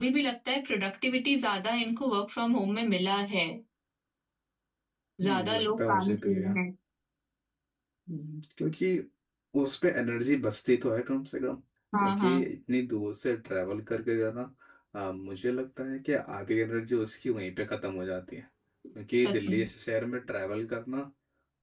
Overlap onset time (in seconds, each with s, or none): 5.2 s